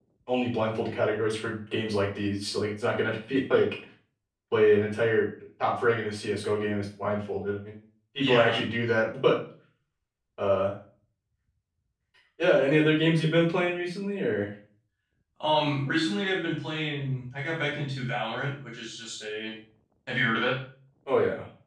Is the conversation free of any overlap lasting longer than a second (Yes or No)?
Yes